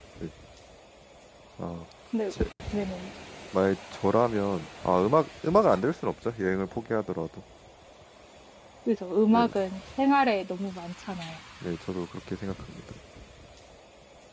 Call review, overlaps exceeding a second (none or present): none